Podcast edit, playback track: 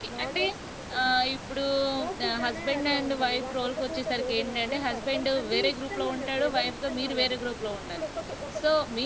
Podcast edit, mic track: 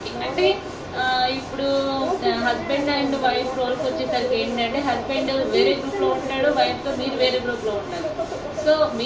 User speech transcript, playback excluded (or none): none